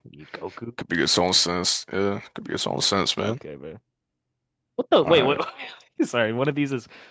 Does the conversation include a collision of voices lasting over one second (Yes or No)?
No